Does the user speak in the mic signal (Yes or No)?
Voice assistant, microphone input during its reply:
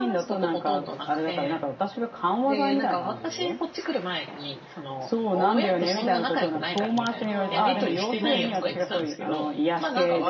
Yes